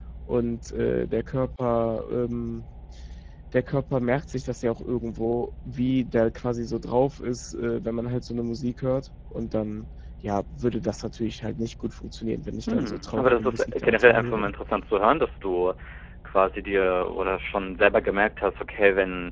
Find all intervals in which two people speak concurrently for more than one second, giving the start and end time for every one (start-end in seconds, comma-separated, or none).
12.7-14.5